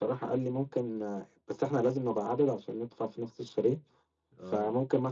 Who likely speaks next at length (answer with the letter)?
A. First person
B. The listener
A